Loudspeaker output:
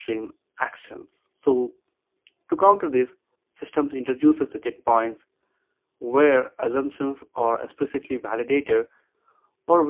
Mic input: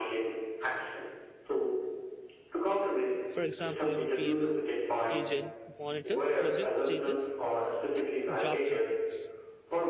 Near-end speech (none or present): present